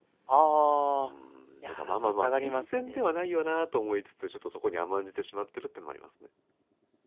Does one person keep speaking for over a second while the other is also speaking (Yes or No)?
Yes